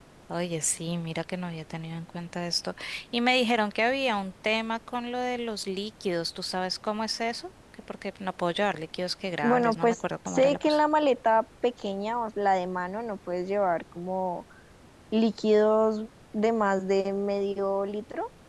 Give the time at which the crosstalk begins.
9.4 s

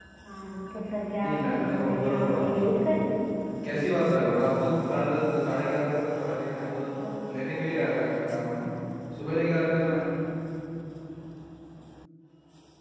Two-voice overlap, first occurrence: 1.2 s

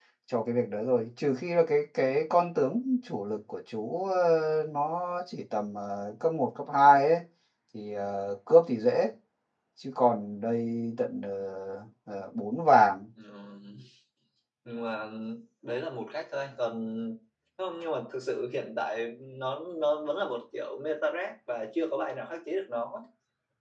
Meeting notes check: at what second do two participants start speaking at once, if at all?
none

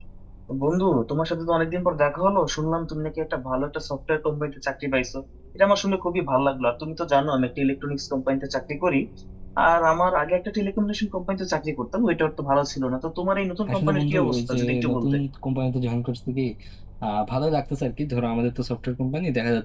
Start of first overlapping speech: 13.7 s

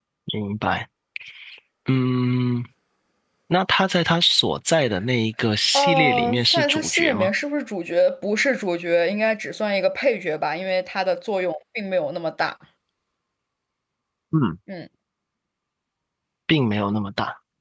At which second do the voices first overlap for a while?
5.7 s

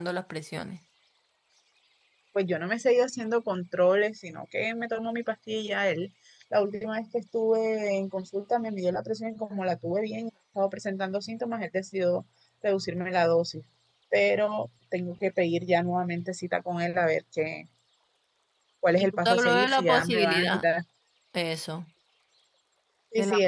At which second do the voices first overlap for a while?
19.0 s

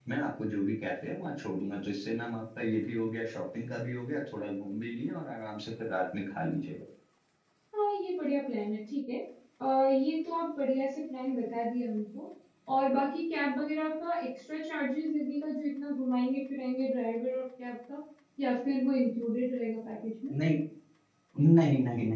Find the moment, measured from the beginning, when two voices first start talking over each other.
none

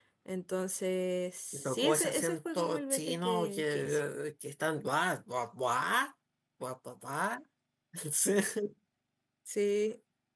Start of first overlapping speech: 1.5 s

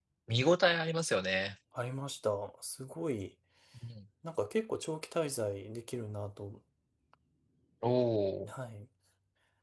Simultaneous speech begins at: none

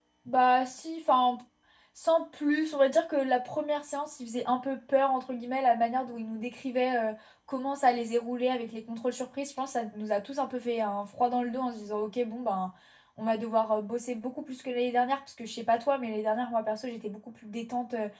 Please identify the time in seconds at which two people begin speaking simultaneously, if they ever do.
none

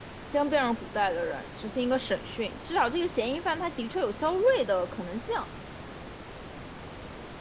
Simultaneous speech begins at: none

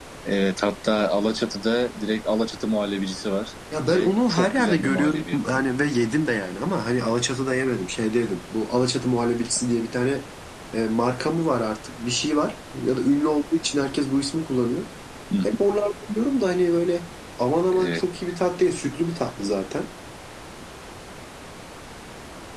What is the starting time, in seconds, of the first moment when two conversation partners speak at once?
3.9 s

